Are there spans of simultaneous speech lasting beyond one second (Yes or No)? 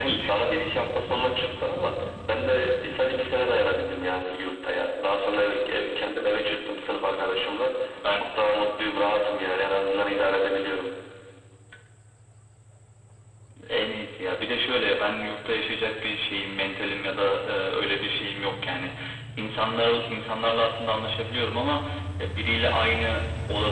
No